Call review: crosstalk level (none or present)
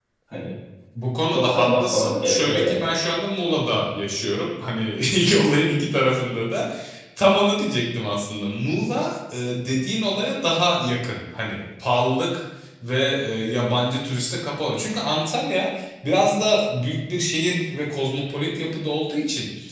present